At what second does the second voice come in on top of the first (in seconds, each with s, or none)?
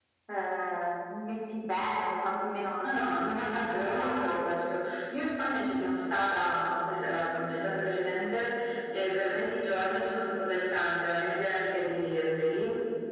2.8 s